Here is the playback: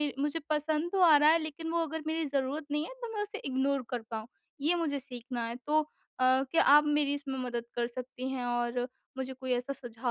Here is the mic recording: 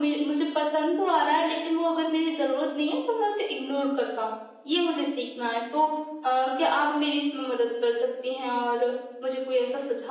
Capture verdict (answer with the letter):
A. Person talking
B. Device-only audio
B